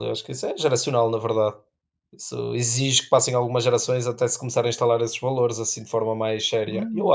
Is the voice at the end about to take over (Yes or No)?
Yes